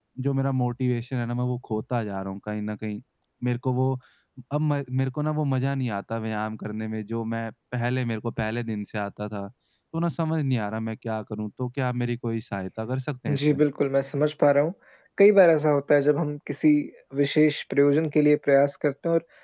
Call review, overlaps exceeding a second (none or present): none